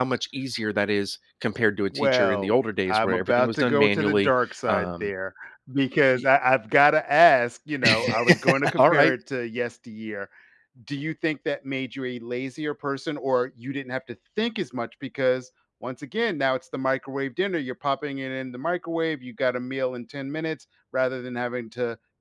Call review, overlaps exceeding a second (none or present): present